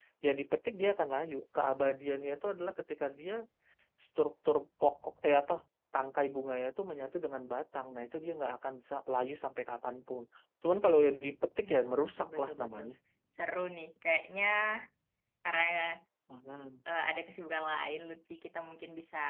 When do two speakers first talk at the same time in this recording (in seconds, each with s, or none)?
11.6 s